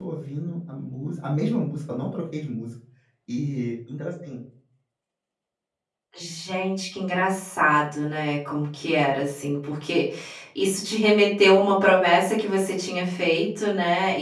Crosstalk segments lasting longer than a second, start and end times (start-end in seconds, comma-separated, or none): none